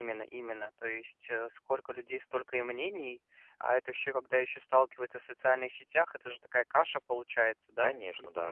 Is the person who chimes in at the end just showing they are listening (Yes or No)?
No